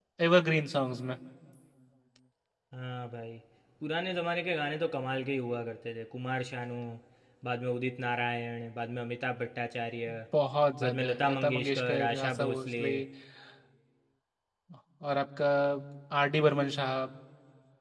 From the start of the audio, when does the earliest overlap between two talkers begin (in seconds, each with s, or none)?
10.8 s